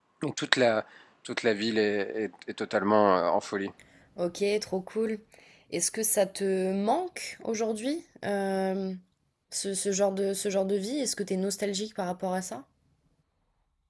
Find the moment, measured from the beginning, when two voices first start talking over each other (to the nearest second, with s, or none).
none